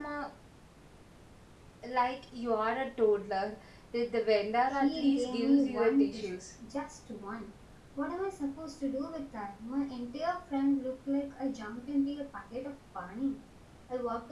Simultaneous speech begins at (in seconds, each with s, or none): 4.7 s